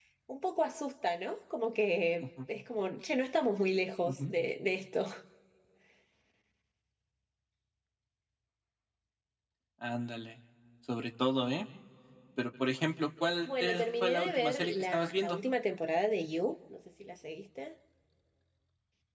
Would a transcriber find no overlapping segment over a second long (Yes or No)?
No